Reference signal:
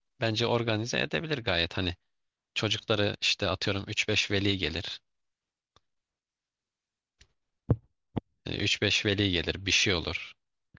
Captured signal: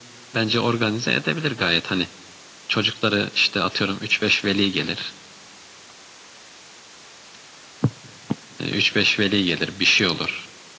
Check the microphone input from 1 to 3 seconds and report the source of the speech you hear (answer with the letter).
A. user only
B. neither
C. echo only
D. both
C